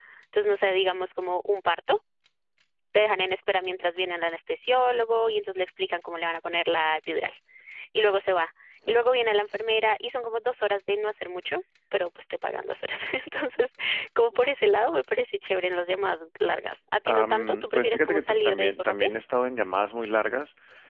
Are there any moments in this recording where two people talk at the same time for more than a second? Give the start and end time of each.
17.1-19.1

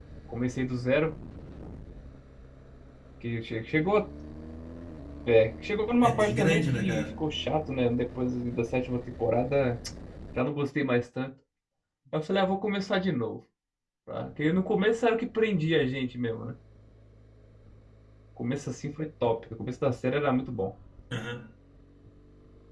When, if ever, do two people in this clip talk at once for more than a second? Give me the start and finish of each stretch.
6.0-7.2

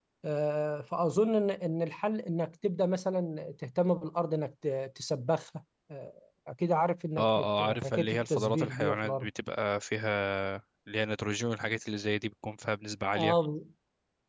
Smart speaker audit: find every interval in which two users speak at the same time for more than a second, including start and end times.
7.2-9.3

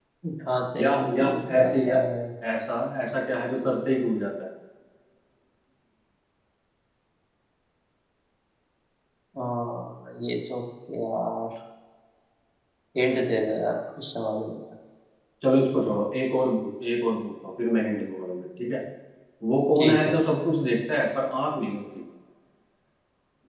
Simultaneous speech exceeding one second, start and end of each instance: 0.8-2.0

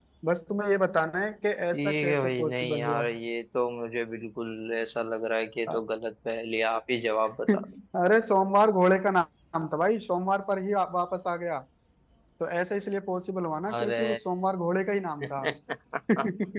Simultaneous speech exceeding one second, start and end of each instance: 1.7-3.0

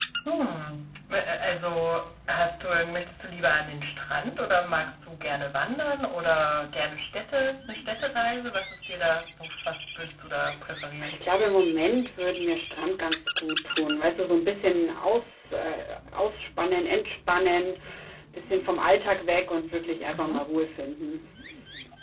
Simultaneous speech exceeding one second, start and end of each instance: none

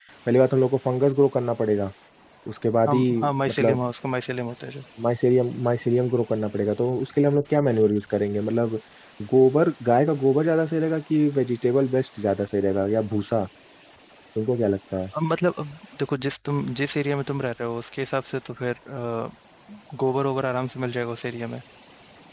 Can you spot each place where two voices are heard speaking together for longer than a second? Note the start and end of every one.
none

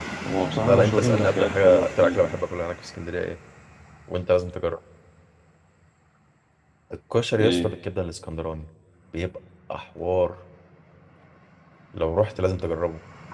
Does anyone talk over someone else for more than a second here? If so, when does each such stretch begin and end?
0.6-2.4

